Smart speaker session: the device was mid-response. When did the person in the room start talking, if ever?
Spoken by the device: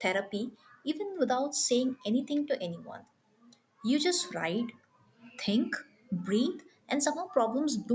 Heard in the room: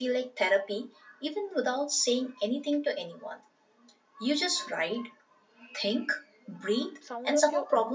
7.0 s

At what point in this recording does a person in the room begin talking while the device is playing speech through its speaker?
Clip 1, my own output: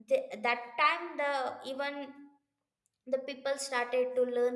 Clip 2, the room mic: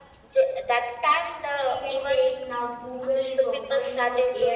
1.6 s

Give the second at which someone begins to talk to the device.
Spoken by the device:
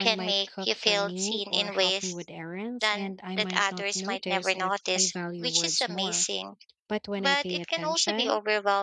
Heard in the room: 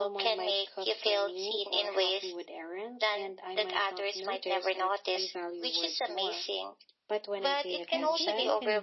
7.9 s

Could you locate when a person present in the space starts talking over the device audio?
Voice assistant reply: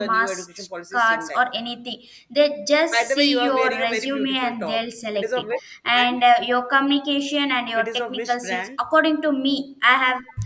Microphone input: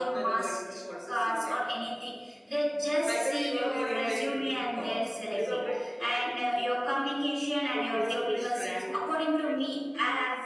7.7 s

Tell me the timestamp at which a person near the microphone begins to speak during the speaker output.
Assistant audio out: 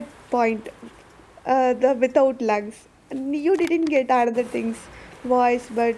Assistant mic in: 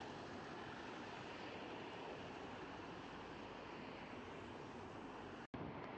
none

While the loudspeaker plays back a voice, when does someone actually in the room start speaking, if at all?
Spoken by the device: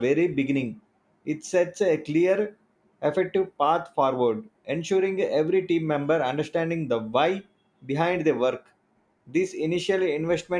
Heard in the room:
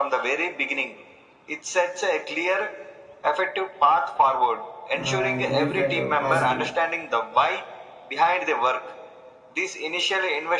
5.0 s

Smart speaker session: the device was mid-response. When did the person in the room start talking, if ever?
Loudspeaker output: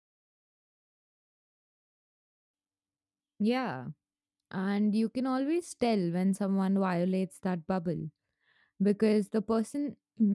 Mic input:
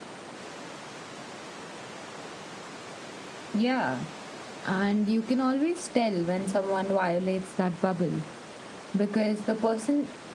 none

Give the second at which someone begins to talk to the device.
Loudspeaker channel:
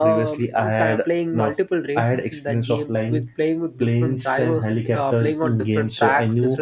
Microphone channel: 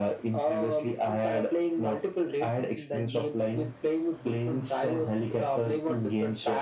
none

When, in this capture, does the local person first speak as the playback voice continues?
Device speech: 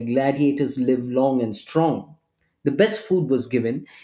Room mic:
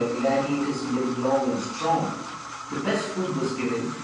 none

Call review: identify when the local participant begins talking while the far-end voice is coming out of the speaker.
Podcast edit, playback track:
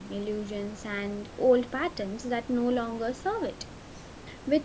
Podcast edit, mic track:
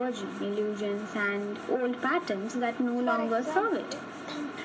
2.9 s

